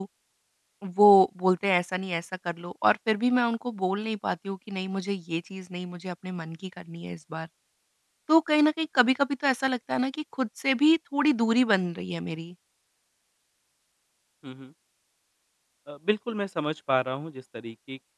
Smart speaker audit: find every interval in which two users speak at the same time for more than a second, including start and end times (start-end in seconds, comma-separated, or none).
none